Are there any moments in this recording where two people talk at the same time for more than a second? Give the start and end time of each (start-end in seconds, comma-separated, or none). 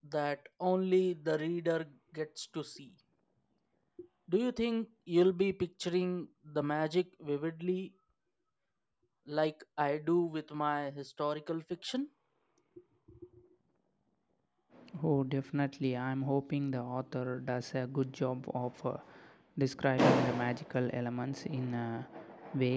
none